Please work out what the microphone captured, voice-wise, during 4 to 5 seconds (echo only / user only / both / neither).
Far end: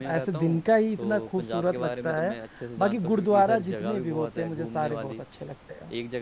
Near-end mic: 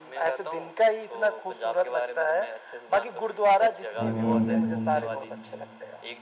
both